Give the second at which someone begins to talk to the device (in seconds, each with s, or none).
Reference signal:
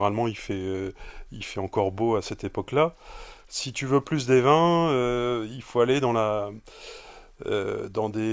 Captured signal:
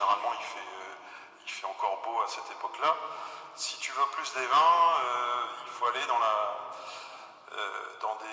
none